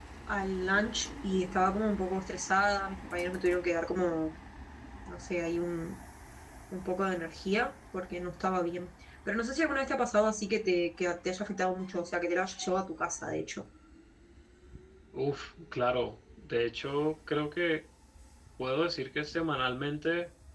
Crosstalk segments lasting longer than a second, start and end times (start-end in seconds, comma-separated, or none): none